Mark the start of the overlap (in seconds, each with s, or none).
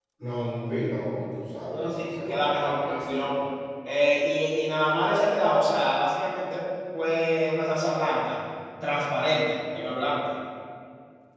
1.7 s